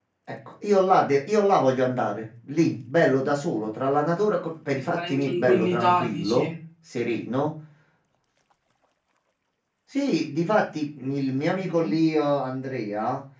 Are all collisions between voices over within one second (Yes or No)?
No